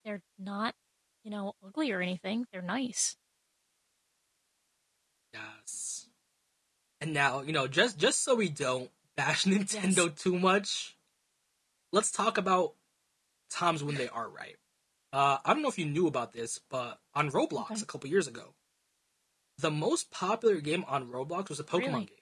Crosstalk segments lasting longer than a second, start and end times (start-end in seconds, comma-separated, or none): none